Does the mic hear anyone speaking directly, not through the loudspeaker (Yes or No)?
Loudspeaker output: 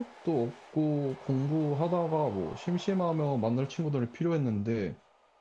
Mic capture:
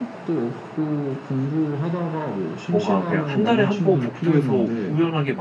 Yes